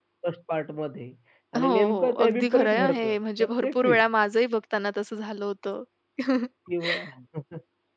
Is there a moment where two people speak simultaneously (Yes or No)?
Yes